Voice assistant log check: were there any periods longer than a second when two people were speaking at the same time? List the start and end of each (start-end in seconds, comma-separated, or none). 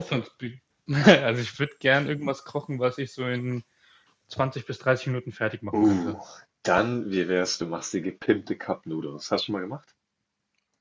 none